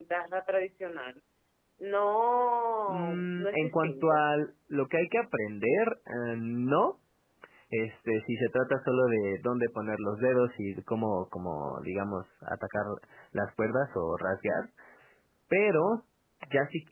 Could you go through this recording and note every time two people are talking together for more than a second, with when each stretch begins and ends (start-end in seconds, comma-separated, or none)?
2.9-4.3